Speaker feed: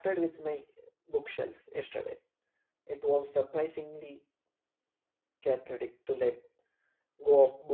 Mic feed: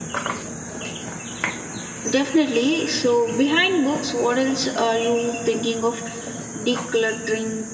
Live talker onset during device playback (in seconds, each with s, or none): 2.1 s